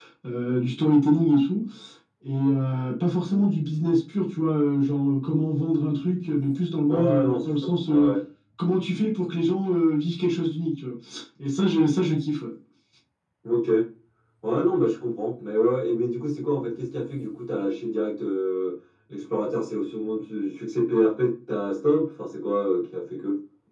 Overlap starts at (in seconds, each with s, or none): 6.9 s